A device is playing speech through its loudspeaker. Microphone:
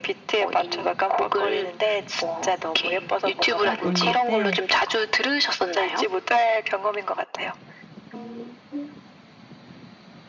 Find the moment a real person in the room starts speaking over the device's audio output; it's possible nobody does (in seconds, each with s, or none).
3.6 s